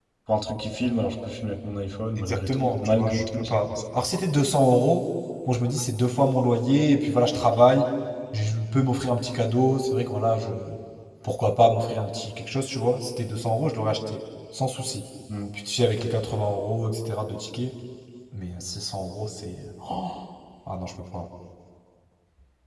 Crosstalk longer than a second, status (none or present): present